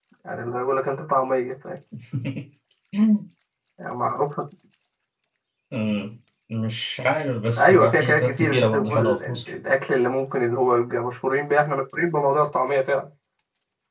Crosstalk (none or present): present